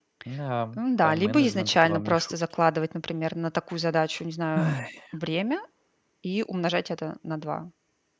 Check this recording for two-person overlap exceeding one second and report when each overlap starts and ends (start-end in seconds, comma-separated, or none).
0.8-2.3